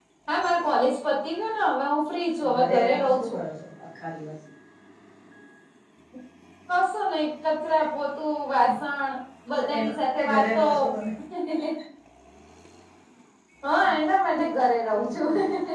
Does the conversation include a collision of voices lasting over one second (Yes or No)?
Yes